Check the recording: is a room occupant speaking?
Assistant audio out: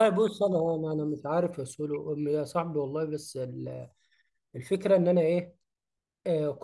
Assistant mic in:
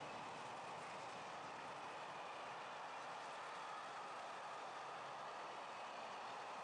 No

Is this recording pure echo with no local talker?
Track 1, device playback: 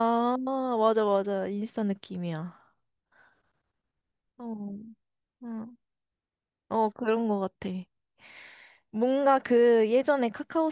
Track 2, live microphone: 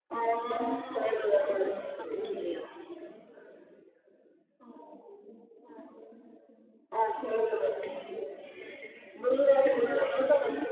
Yes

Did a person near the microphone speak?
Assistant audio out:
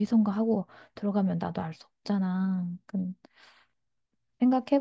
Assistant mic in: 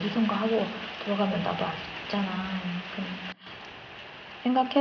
No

